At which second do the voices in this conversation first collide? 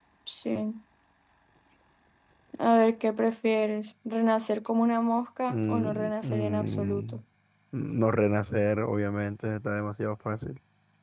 5.5 s

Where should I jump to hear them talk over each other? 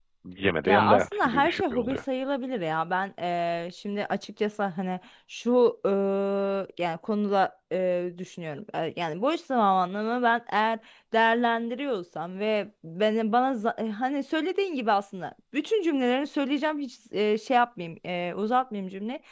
0.7 s

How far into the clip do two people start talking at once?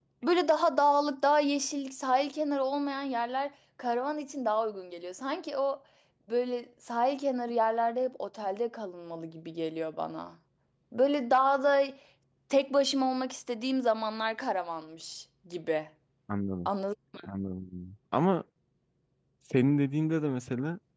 none

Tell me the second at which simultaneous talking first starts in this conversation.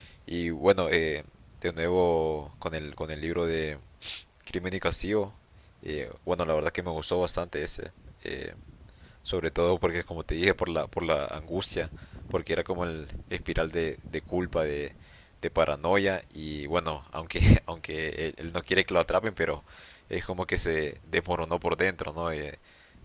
none

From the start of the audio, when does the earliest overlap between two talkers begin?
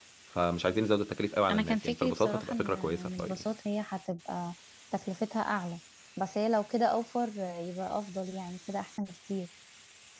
1.5 s

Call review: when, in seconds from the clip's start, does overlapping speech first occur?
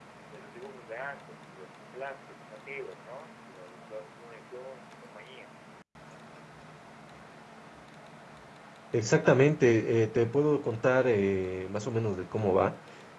none

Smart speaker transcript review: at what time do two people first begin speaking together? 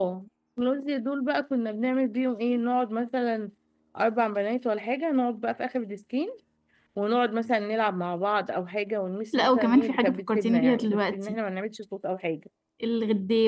9.3 s

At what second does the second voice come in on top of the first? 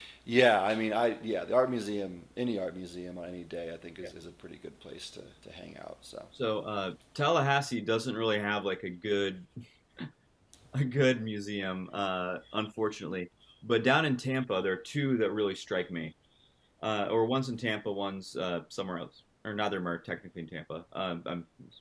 none

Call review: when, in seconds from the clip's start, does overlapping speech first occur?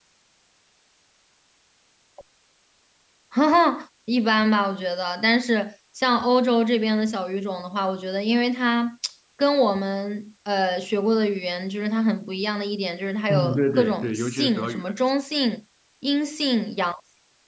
13.3 s

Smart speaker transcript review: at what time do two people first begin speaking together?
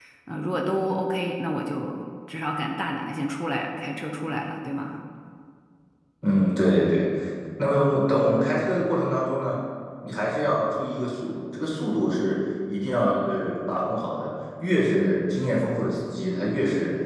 none

